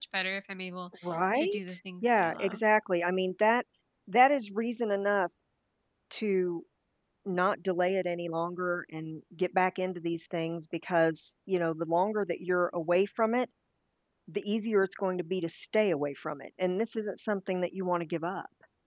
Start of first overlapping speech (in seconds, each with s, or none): 1.3 s